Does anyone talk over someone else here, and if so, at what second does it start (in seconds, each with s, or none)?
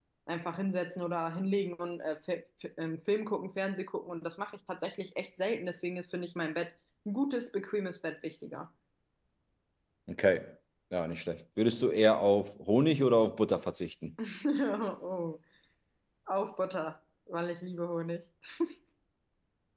none